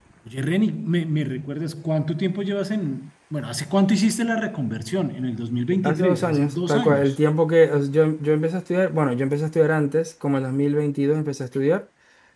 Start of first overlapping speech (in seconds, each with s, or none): 5.8 s